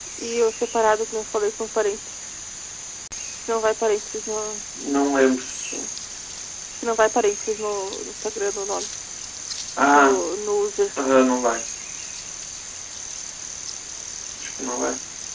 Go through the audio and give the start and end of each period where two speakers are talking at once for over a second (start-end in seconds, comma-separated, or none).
none